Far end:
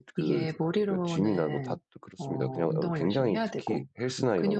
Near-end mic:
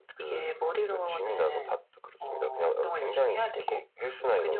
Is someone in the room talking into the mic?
No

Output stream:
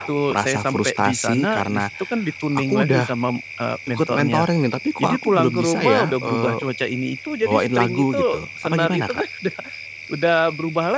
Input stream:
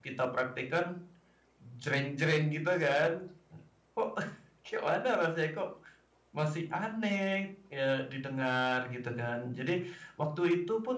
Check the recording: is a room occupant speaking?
Yes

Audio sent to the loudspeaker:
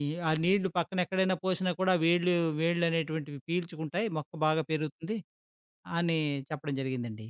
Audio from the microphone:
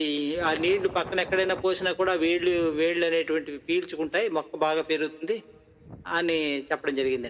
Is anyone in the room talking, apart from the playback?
No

